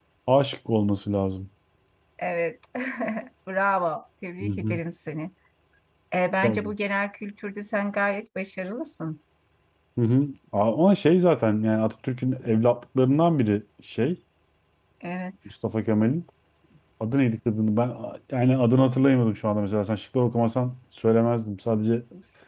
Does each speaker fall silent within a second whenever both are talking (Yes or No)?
Yes